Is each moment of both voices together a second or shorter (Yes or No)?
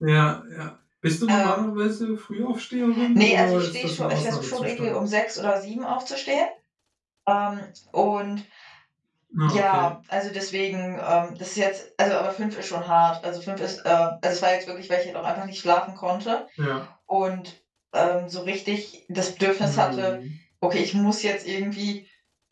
No